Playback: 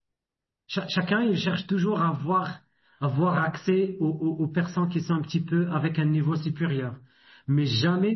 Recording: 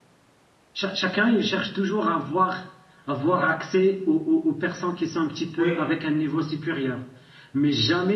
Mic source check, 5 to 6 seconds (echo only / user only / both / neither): both